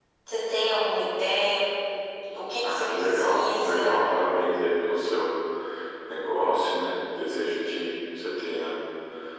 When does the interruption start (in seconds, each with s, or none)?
2.6 s